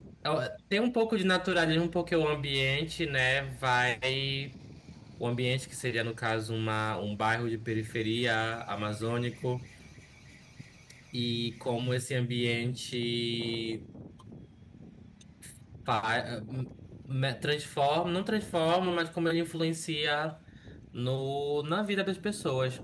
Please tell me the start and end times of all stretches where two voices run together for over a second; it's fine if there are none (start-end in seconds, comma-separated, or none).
none